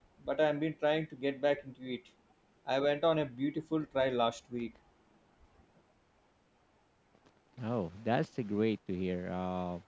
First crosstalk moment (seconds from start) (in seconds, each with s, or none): none